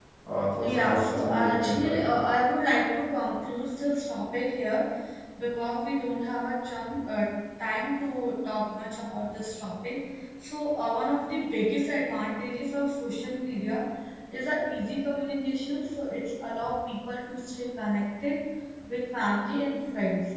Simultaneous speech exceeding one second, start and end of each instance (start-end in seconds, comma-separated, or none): 0.6-2.0